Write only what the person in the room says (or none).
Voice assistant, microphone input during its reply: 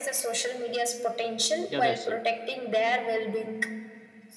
yeah that's it